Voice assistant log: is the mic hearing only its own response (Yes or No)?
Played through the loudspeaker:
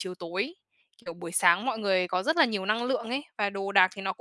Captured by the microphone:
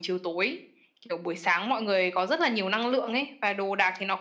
Yes